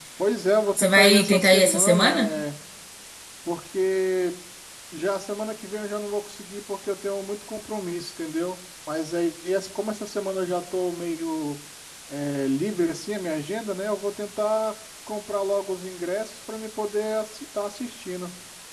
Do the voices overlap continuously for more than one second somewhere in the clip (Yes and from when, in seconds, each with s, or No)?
Yes, from 0.8 s